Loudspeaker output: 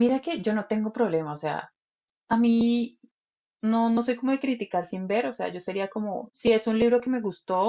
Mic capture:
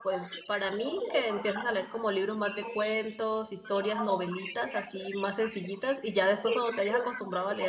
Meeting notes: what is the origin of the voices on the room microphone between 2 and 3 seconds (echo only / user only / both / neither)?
both